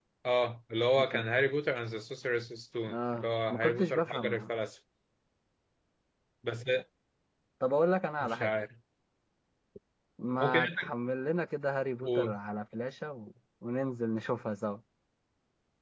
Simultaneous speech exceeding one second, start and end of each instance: 2.9-4.5

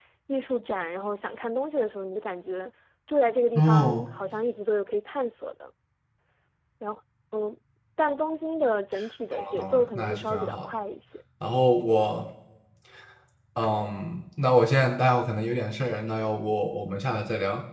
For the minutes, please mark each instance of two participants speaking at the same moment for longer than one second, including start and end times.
9.3-10.7

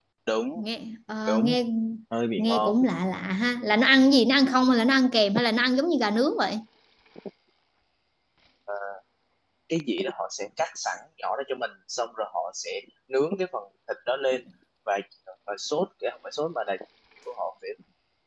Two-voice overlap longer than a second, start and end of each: none

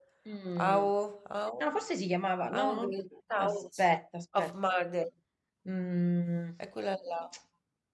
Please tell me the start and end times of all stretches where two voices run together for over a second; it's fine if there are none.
none

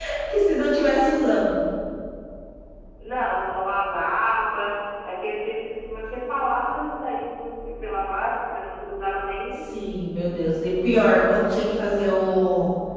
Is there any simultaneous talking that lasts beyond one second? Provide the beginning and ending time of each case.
none

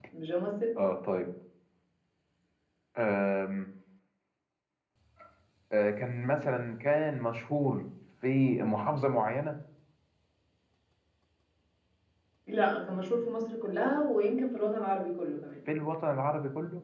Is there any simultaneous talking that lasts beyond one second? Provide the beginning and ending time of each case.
none

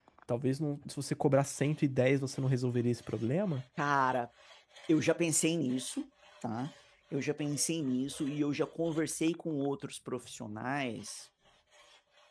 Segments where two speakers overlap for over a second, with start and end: none

